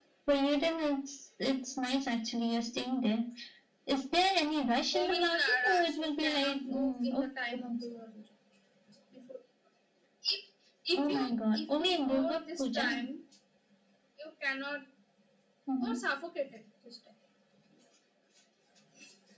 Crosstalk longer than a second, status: present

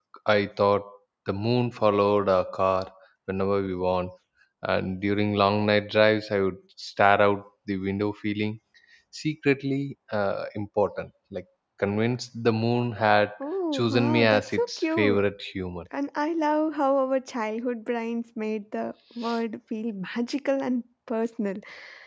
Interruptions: present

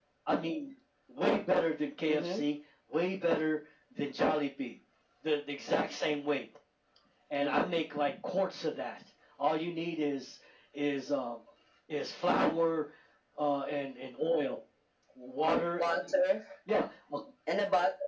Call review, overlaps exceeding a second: none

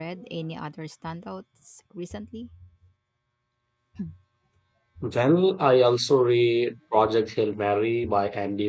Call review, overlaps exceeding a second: none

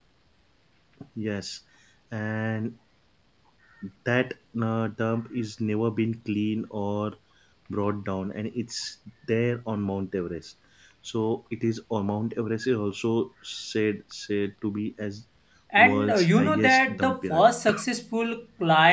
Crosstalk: present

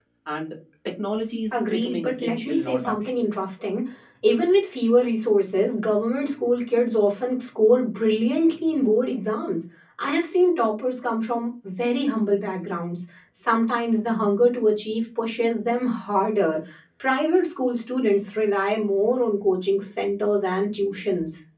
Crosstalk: present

